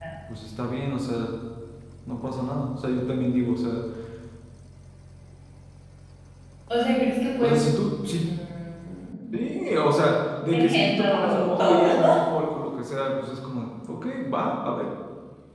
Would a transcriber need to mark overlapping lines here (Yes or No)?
Yes